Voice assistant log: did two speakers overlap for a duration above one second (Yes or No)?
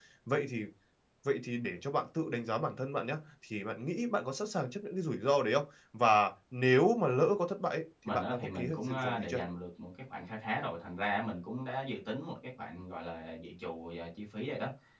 Yes